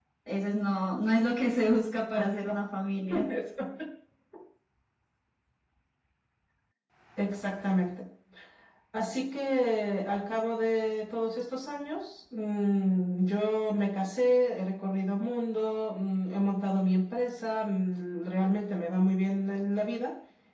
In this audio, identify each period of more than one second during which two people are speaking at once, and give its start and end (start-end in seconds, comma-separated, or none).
none